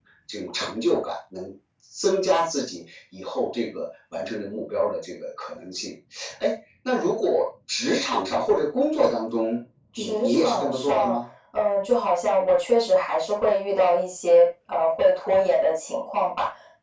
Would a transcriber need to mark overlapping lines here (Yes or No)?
Yes